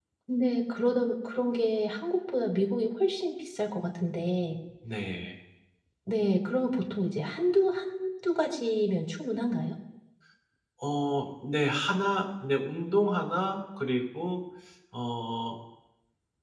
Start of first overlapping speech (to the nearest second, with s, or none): none